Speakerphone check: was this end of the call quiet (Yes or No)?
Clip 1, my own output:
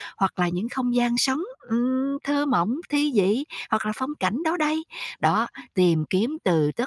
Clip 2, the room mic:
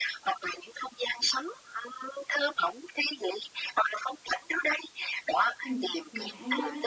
No